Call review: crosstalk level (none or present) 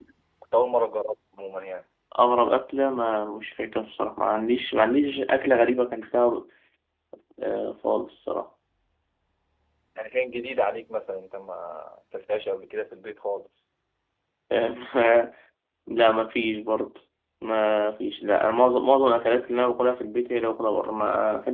none